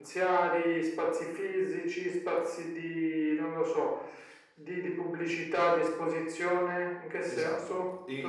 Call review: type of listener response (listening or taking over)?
taking over